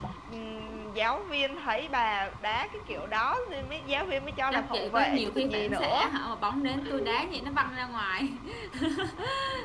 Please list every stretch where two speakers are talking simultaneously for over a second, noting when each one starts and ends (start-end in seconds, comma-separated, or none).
4.5-6.1